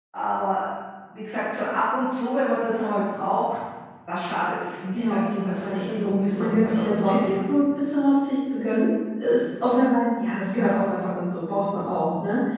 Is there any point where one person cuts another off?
Yes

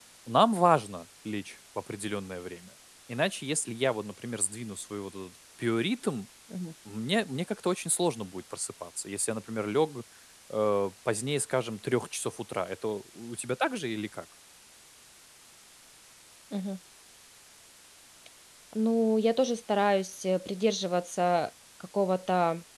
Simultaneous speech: No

